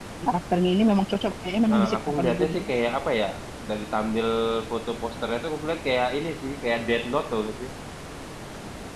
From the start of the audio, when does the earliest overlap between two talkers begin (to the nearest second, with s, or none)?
2 s